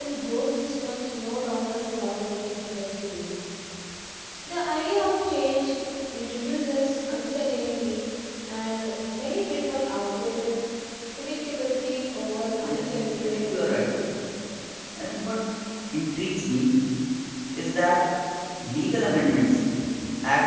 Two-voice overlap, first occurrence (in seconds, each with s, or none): 12.6 s